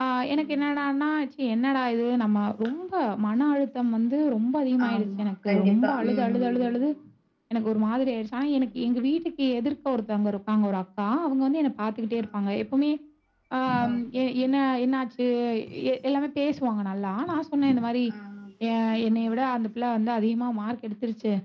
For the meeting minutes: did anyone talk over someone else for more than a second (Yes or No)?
Yes